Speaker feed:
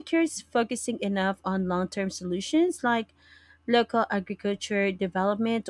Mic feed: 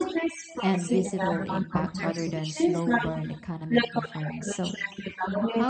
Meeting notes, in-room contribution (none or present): present